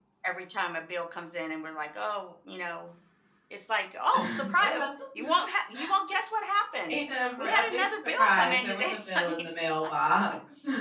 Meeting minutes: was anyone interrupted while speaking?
Yes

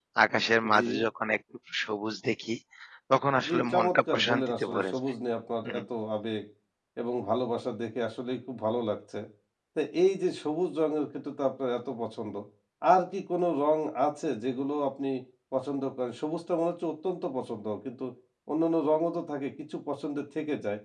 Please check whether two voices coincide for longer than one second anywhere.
Yes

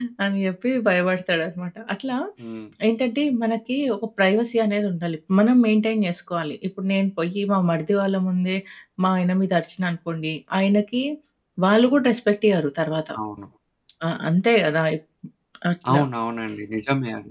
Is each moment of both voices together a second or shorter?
Yes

